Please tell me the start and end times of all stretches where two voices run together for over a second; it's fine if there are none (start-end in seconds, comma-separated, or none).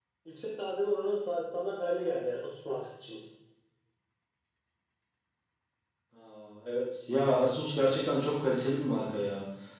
none